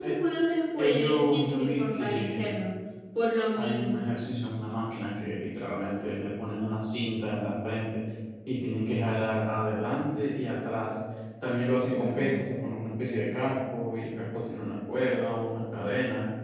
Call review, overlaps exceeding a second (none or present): present